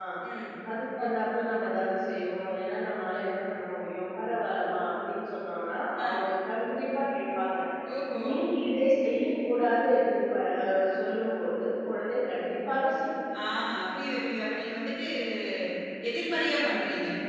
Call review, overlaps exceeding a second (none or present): none